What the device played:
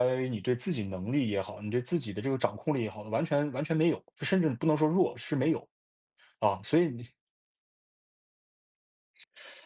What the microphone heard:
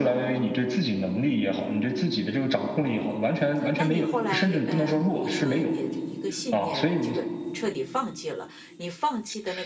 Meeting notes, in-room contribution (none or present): present